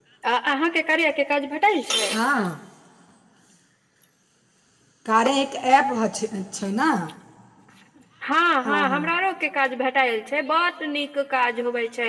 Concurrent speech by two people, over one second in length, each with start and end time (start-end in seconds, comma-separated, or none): none